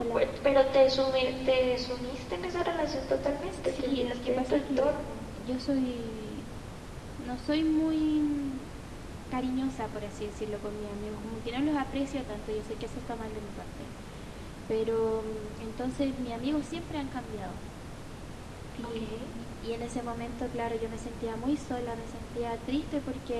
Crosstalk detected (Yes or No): Yes